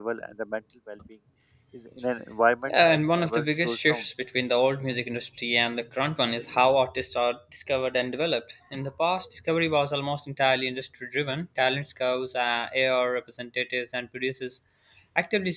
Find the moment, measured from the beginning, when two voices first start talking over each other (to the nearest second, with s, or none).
3 s